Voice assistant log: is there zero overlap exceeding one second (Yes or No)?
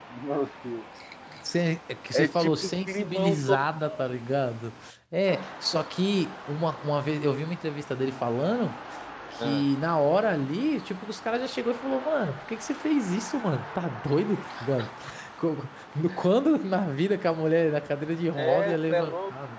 No